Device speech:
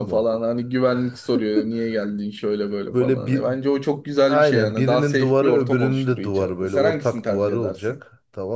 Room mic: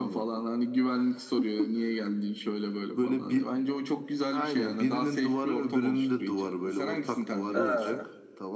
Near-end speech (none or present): present